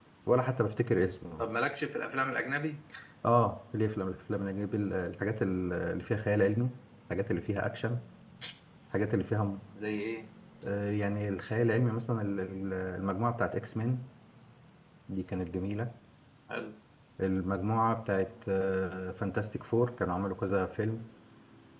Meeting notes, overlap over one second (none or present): none